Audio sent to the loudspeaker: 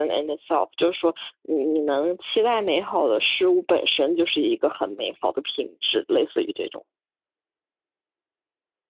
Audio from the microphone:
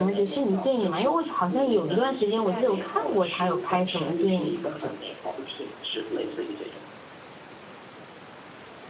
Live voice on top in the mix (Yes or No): Yes